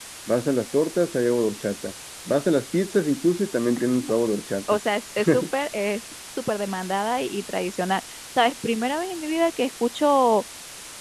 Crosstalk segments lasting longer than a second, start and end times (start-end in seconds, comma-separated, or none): none